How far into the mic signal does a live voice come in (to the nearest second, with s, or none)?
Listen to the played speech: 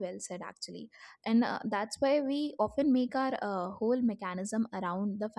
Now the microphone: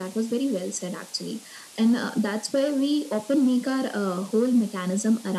none